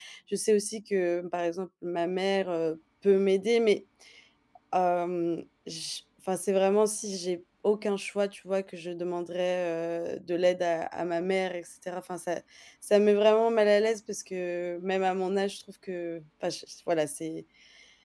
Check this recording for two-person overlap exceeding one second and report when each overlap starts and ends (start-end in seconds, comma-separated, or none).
none